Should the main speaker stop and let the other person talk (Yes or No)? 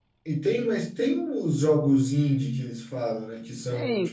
Yes